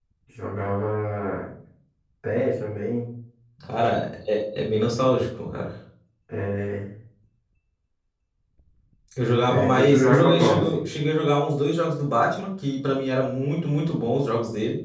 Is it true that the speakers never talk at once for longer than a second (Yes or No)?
No